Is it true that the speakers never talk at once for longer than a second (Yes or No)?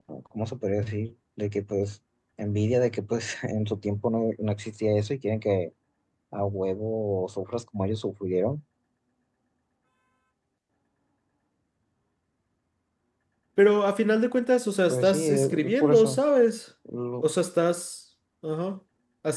No